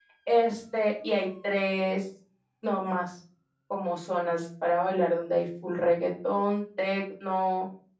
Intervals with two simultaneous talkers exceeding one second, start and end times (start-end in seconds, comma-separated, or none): none